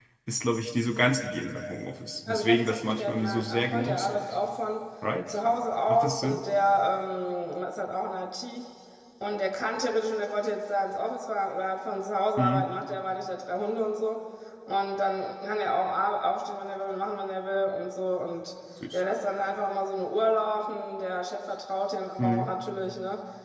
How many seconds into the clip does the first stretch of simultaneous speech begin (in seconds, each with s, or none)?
2.3 s